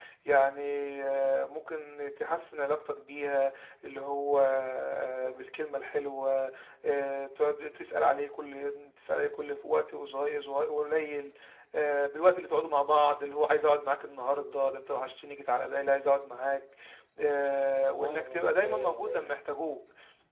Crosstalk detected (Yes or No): Yes